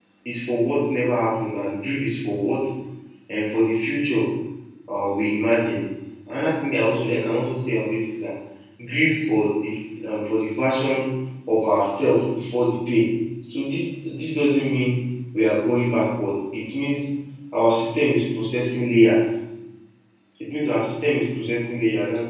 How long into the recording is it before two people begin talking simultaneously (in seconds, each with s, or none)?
none